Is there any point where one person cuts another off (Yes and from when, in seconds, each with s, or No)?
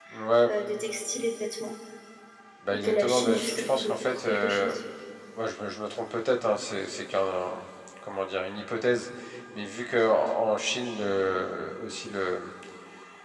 Yes, from 2.7 s